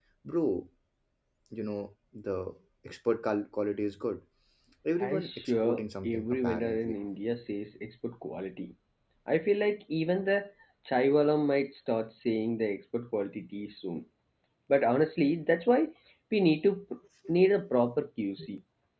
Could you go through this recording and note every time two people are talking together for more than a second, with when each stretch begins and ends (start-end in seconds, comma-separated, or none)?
5.0-7.0